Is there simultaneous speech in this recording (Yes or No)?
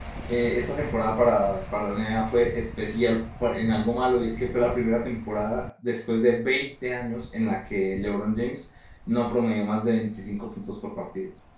No